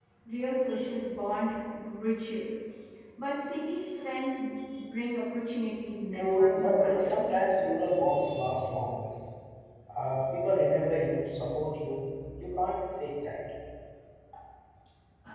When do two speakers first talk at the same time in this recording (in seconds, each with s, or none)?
6.1 s